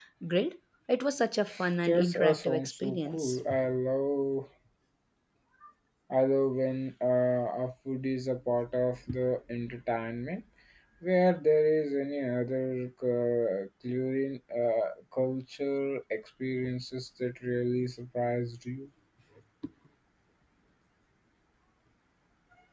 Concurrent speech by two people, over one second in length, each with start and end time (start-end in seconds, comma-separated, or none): 1.9-3.4